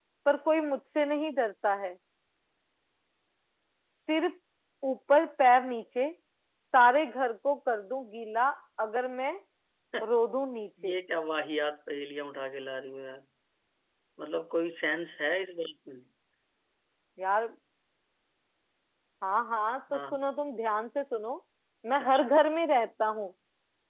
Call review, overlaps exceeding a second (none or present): none